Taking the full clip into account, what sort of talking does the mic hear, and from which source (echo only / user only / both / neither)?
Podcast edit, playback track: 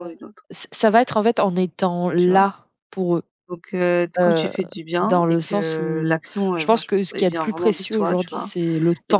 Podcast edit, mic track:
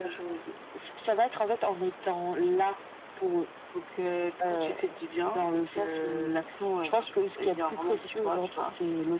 echo only